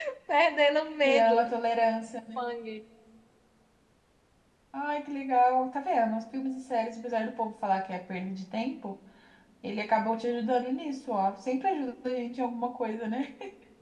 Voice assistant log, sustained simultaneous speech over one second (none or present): none